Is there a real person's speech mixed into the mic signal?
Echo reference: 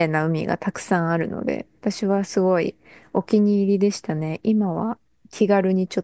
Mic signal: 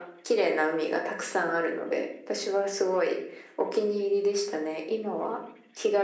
No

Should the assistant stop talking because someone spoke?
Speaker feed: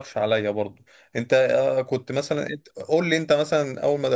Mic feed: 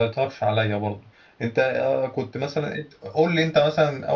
No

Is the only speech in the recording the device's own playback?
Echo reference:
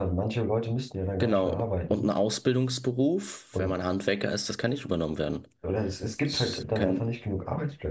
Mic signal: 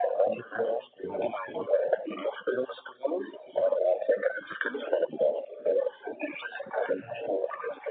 Yes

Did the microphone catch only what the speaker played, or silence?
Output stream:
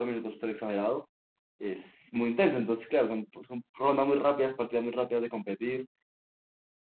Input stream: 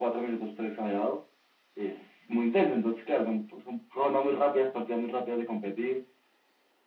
Yes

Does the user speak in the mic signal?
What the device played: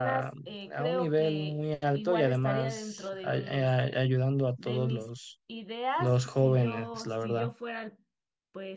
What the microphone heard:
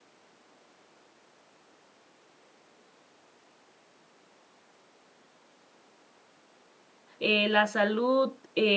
Yes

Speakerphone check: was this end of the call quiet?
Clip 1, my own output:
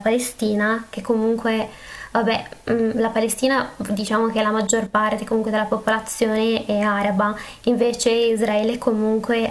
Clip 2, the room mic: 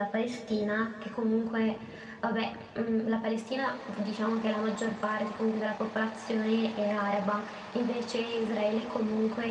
Yes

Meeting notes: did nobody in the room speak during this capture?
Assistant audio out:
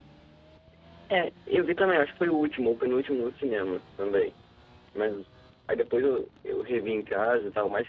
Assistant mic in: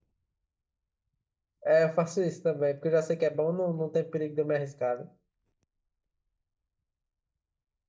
No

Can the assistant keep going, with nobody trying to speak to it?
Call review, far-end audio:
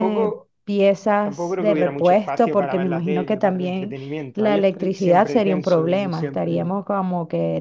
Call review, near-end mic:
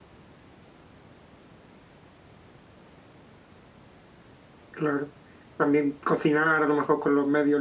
No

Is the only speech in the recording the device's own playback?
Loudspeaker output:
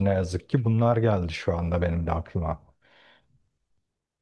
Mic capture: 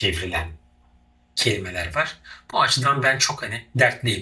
No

